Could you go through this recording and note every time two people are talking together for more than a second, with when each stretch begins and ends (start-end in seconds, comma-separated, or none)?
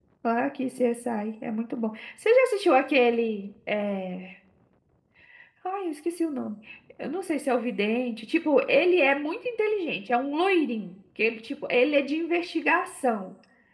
none